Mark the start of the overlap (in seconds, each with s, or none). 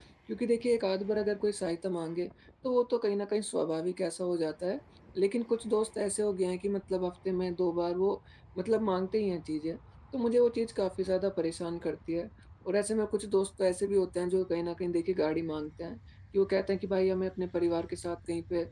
none